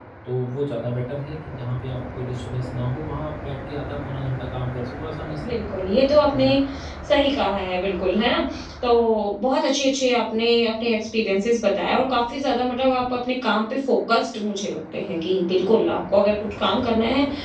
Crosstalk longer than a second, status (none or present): none